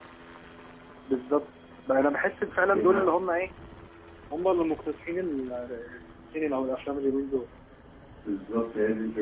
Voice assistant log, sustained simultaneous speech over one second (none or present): none